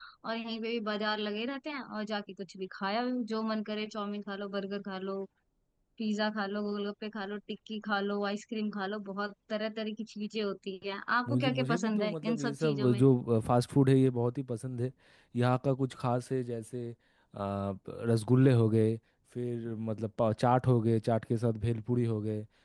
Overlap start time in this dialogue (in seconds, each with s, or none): 11.3 s